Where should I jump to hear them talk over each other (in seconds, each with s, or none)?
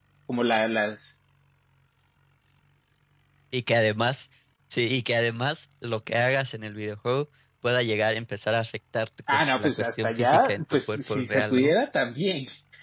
9.3 s